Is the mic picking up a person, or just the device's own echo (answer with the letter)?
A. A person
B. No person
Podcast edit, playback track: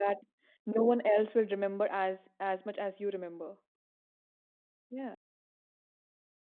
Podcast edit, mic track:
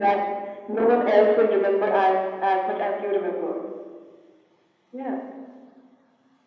B